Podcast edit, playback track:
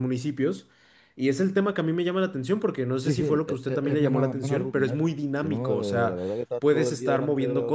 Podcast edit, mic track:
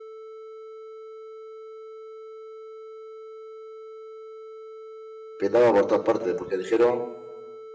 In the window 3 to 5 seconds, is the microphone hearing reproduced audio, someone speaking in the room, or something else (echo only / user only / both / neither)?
neither